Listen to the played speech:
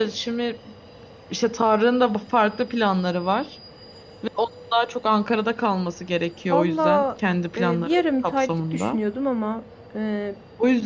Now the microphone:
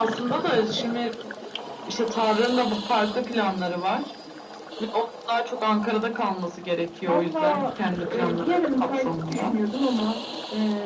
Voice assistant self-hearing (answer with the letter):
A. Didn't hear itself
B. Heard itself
B